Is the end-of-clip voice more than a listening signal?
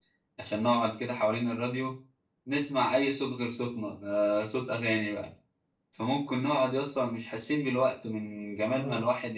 No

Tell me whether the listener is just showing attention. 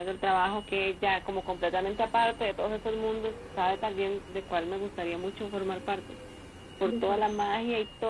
Yes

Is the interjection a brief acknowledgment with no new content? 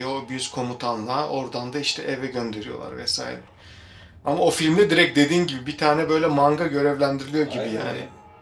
No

